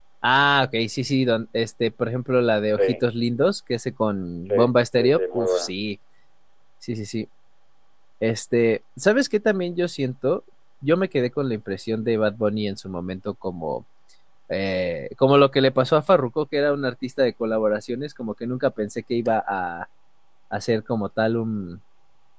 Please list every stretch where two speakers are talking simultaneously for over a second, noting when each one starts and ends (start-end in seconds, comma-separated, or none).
4.5-5.7